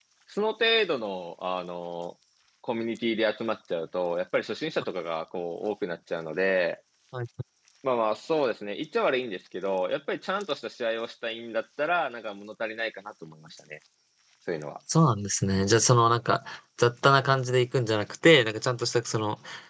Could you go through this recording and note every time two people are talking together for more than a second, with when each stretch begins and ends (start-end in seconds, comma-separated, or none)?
none